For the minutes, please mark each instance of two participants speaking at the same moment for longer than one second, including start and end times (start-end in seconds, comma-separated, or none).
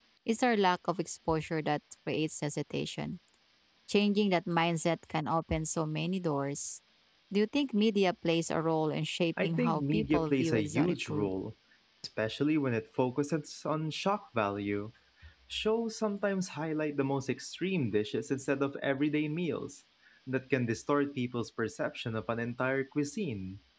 9.4-11.3